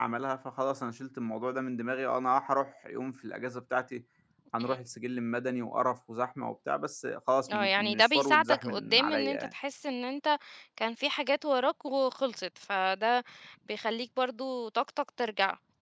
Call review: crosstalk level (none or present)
present